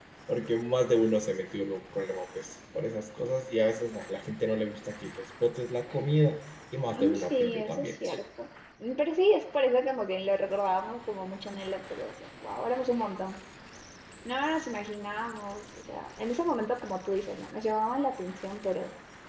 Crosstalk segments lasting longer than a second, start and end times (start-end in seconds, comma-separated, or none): 6.9-8.2